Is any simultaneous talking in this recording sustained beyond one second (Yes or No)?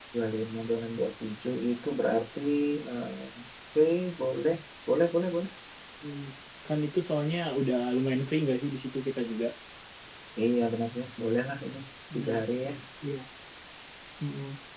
No